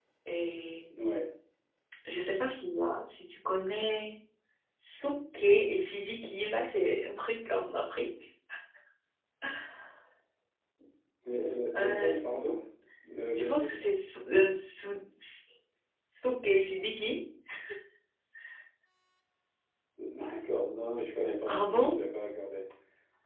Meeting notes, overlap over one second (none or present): none